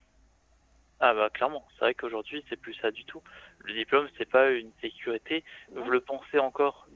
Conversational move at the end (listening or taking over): listening